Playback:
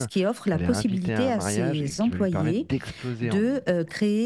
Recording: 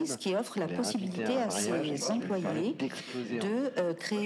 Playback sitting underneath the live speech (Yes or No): No